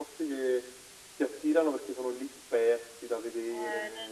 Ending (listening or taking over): taking over